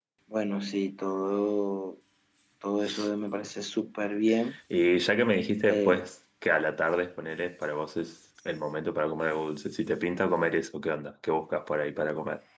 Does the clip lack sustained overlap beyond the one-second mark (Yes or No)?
Yes